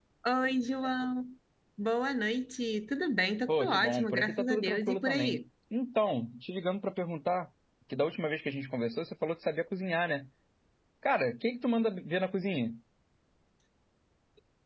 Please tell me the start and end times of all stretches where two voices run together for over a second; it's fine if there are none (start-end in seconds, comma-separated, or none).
3.5-5.4